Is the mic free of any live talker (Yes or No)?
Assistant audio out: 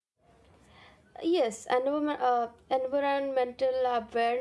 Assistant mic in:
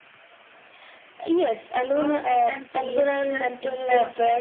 No